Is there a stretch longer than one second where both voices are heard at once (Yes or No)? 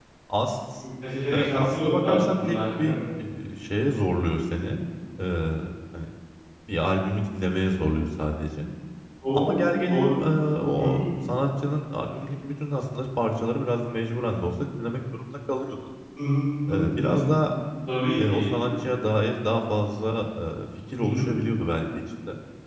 Yes